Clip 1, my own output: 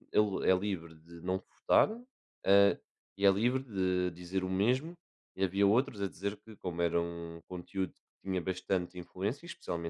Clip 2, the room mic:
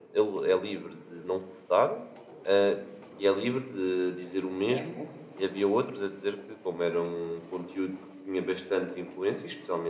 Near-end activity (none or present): present